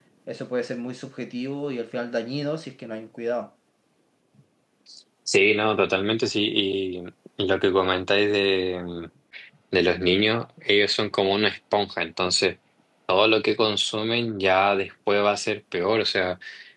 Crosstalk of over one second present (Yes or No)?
No